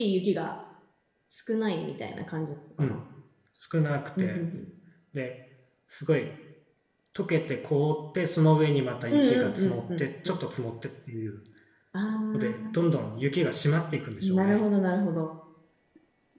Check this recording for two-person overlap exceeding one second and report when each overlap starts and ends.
9.1-10.4

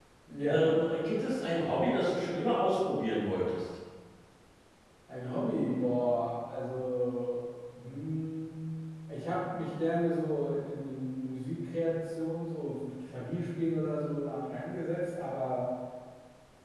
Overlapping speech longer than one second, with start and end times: none

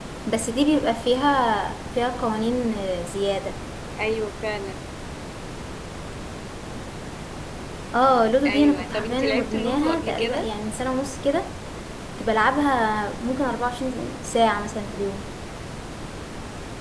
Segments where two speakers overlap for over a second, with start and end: 8.5-10.5

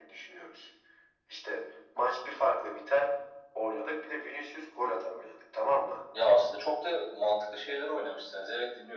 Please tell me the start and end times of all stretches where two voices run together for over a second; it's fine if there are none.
none

